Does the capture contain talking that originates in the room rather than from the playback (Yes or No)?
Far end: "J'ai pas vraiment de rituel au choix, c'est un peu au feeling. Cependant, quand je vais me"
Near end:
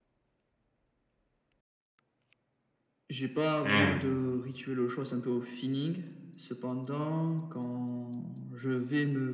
Yes